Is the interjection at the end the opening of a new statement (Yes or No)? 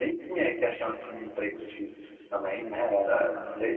No